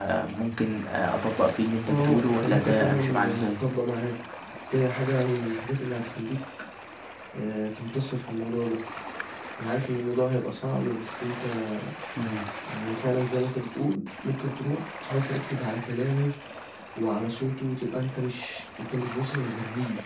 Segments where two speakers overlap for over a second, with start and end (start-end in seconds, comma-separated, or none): 1.9-3.6